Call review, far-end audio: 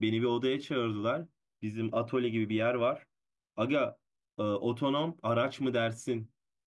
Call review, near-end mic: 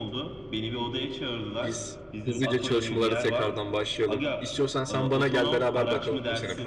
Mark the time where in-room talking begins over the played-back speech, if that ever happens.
1.6 s

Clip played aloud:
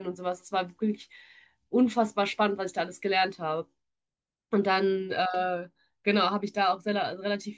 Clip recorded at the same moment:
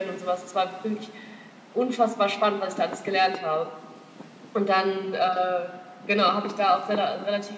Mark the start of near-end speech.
none

